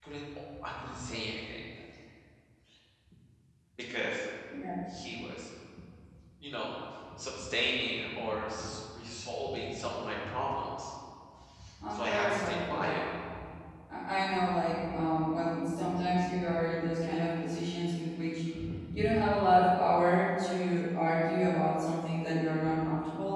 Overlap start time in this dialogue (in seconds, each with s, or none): 11.8 s